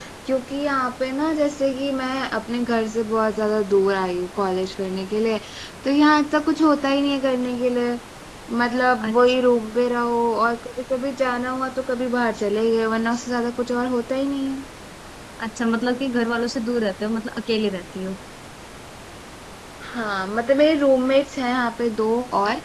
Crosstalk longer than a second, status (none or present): none